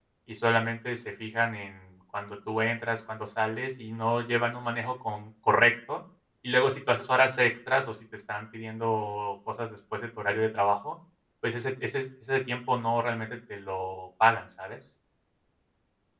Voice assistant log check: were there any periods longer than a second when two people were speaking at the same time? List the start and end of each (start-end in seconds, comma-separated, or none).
none